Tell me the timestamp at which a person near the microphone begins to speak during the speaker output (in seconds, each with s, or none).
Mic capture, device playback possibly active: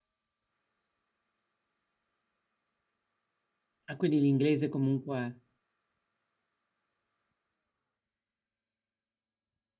3.8 s